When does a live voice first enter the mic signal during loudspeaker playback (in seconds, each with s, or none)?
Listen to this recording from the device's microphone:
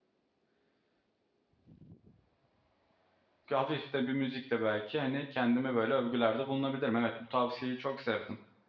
3.5 s